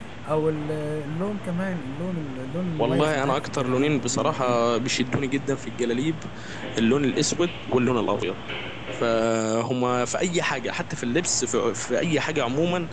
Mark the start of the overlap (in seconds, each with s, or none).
2.8 s